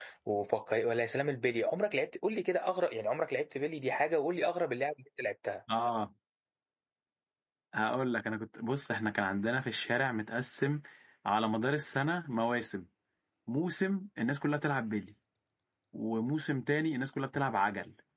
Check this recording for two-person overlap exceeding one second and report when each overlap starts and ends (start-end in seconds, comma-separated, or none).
none